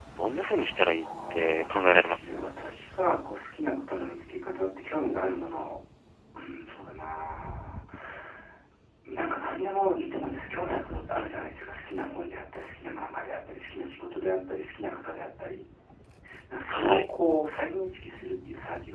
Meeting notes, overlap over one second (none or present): present